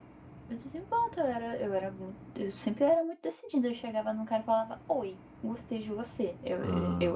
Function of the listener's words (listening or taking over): taking over